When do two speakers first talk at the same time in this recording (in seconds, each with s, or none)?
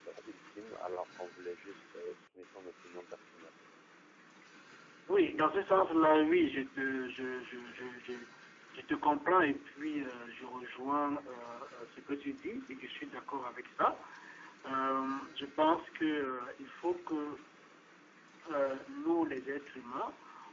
none